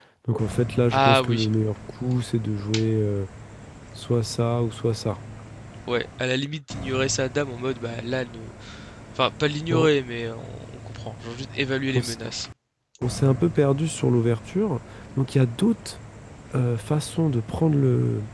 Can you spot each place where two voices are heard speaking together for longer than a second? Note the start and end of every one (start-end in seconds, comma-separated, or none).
none